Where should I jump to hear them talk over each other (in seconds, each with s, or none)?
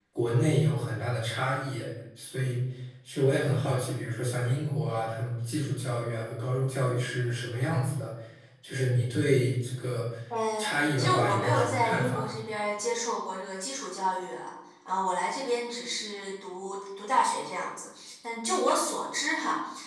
11.0 s